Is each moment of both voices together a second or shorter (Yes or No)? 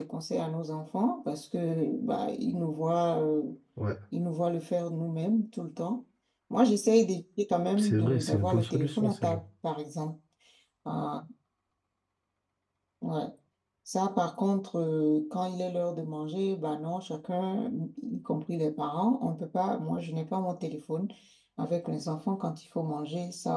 No